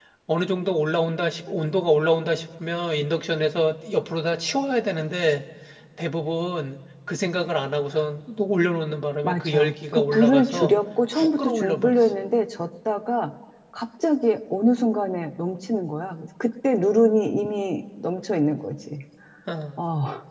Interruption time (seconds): 9.2 s

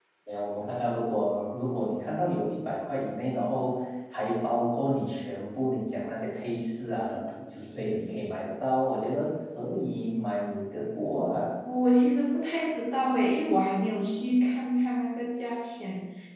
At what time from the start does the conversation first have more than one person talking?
none

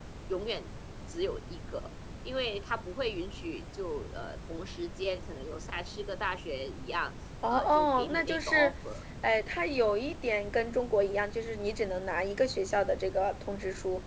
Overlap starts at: 7.4 s

